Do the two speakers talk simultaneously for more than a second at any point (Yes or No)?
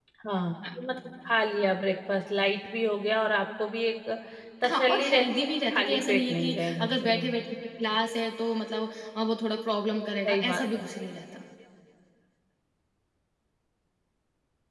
Yes